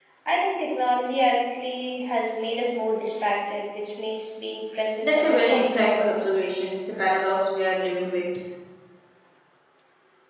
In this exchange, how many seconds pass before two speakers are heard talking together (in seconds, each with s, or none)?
5.0 s